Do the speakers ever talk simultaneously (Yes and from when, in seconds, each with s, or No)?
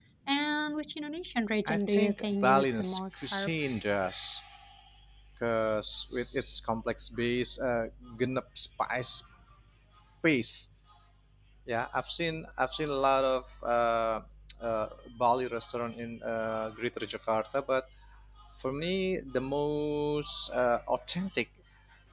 Yes, from 1.6 s